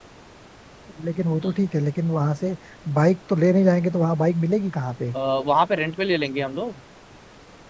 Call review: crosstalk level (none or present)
none